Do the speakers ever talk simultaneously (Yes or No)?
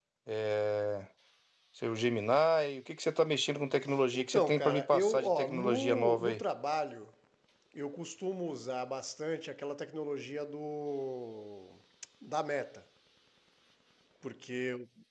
Yes